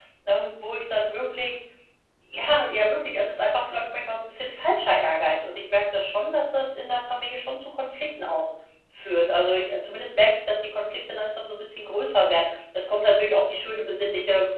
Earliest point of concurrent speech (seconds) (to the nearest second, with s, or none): none